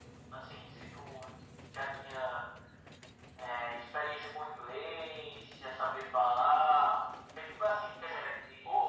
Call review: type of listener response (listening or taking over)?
taking over